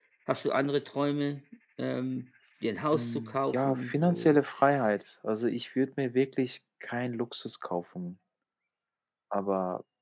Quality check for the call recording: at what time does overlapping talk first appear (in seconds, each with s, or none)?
2.9 s